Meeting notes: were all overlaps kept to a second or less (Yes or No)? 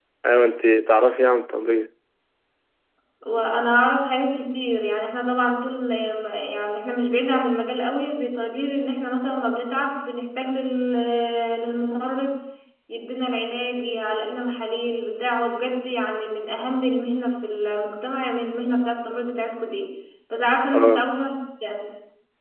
Yes